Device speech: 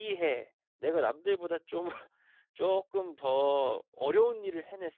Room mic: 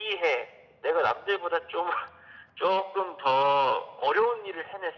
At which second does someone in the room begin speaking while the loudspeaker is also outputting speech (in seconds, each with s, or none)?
none